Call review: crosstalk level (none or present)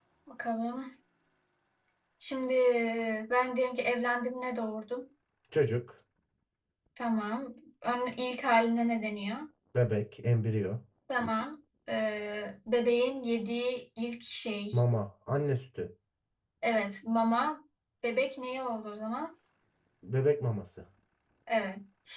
none